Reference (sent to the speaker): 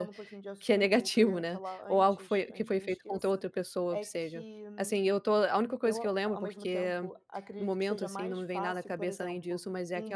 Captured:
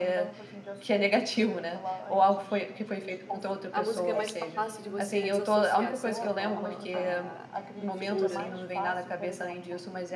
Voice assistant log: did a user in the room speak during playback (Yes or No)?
Yes